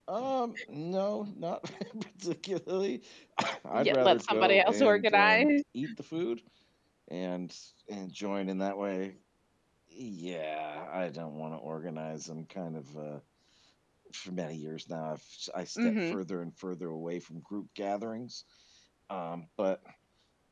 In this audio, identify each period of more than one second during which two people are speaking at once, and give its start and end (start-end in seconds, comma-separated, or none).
3.7-5.5